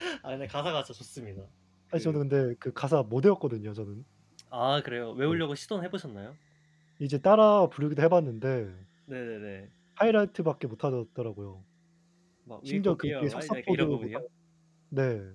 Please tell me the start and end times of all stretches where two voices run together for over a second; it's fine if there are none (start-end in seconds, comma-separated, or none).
12.7-14.2